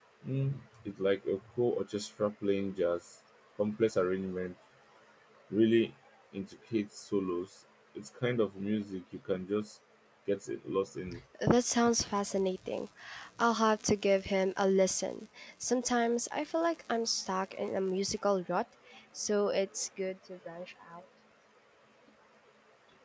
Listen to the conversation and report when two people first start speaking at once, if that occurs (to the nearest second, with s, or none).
none